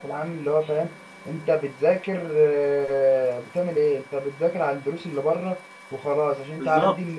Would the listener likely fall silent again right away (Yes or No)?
Yes